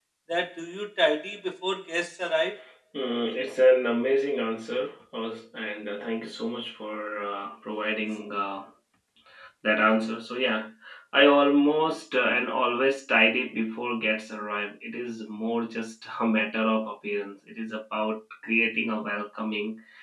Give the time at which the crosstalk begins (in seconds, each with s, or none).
none